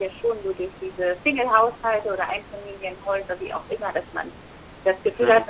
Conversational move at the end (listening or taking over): listening